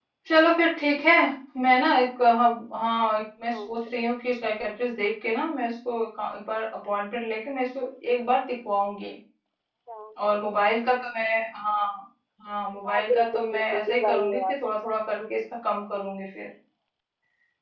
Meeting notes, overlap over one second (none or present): present